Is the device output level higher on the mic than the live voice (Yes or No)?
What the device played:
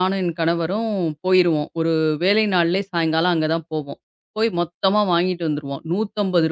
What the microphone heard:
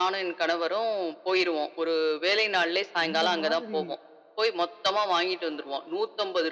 Yes